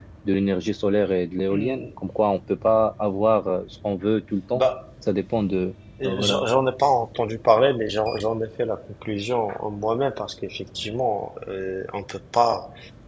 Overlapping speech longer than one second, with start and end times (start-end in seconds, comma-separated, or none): none